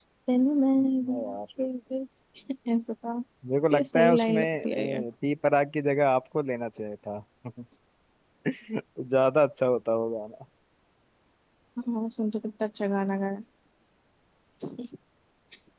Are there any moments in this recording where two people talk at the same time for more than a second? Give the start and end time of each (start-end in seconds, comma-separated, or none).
3.7-5.0